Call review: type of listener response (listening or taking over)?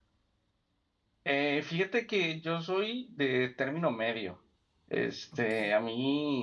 listening